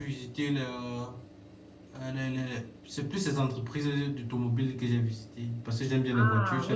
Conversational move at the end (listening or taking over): taking over